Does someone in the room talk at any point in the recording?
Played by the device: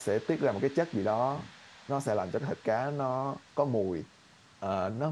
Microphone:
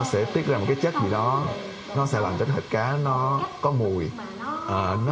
Yes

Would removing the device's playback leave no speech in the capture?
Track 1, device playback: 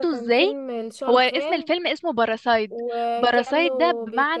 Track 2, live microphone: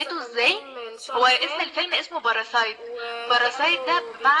Yes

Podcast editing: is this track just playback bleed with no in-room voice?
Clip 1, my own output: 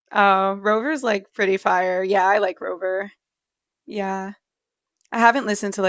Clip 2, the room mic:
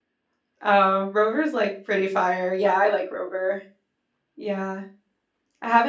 Yes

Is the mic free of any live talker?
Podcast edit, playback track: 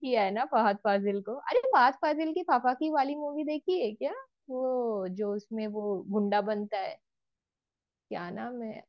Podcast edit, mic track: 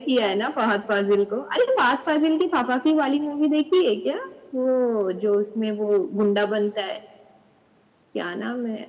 Yes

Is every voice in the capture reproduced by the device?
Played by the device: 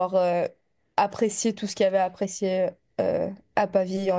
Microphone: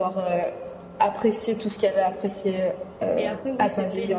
No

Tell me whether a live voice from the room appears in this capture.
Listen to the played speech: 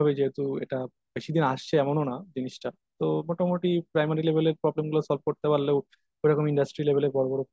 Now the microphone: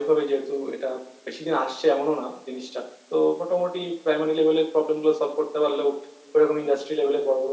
No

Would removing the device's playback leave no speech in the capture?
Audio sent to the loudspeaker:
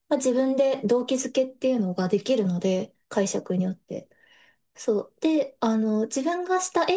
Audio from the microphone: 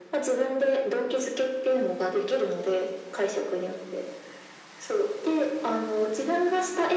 Yes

